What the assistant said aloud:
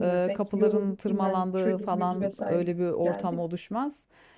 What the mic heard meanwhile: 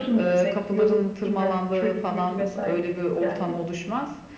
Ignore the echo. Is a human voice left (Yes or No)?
No